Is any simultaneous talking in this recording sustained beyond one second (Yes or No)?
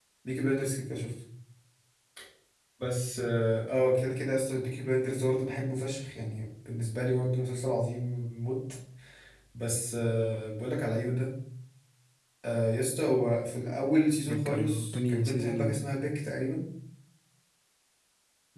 Yes